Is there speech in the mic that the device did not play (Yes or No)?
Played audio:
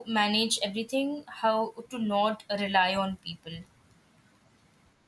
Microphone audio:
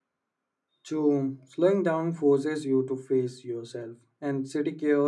Yes